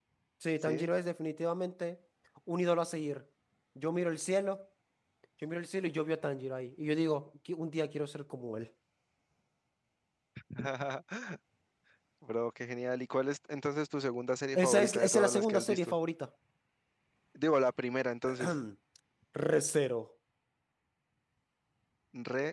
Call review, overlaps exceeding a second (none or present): present